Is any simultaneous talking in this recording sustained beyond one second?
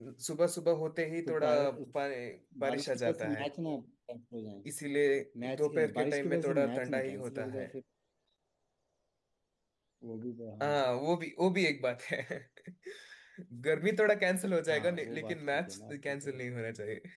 Yes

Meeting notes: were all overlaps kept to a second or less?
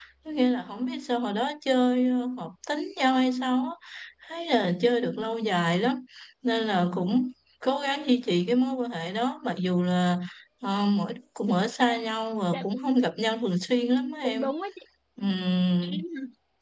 Yes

